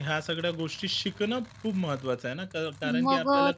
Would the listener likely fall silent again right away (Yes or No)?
No